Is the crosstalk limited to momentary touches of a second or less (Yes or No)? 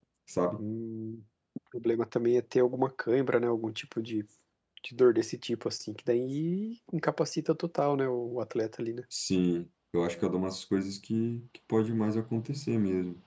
Yes